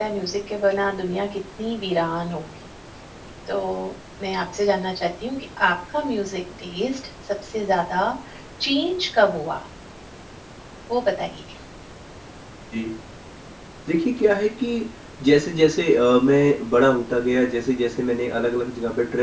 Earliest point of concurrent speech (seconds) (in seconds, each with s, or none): none